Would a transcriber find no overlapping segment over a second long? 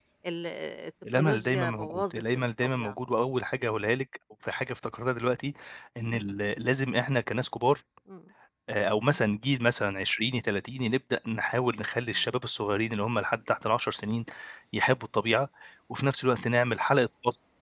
No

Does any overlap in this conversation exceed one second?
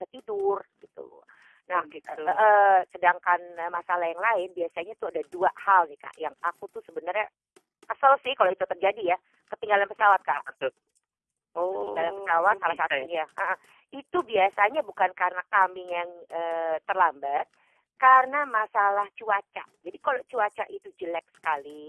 Yes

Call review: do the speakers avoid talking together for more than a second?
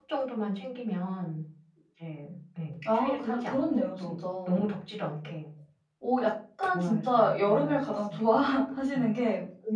No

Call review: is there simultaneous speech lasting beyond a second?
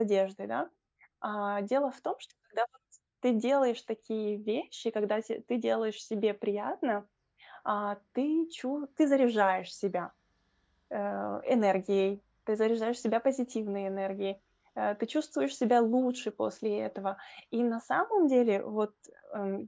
No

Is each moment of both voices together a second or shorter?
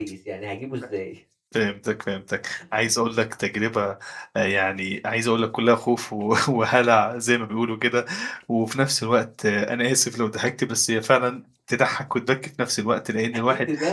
Yes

